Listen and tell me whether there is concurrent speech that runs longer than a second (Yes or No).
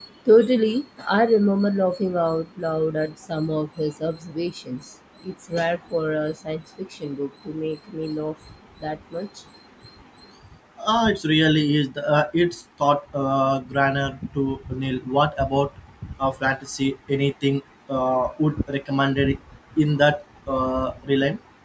No